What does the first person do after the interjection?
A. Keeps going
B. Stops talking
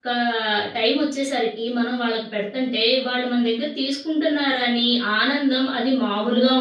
B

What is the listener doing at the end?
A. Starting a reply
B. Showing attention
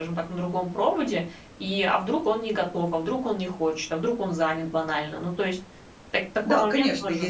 A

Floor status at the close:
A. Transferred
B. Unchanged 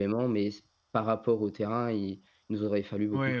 A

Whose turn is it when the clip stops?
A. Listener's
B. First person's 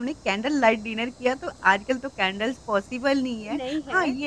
B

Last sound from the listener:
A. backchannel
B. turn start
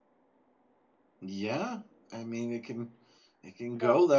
A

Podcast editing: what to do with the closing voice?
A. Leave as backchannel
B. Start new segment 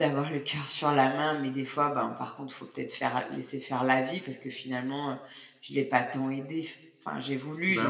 A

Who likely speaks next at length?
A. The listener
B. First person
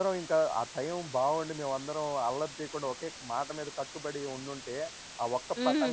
B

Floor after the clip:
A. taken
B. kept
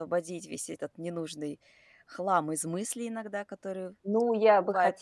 A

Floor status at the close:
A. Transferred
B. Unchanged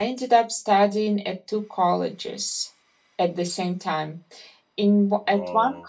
B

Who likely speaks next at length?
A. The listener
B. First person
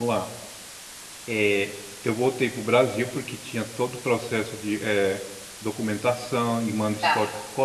B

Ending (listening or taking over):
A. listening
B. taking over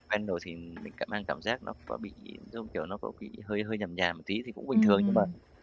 B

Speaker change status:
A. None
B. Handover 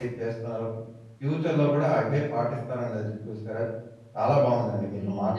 A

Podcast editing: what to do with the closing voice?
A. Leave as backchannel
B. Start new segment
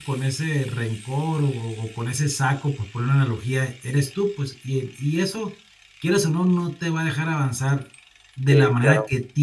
A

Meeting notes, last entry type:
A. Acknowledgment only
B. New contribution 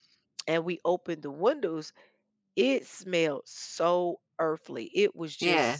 A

